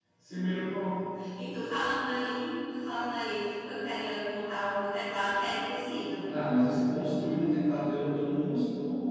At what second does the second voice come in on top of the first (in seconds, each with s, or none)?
none